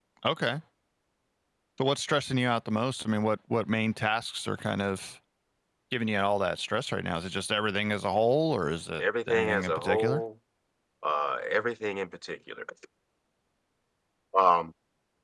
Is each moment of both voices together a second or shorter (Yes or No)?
No